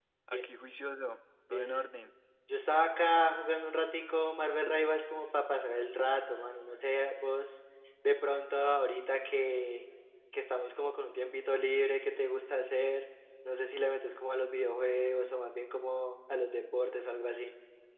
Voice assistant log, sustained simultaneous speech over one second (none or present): none